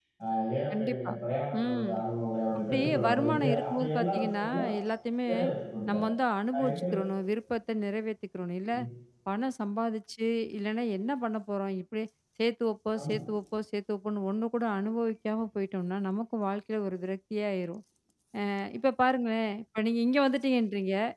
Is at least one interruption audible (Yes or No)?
Yes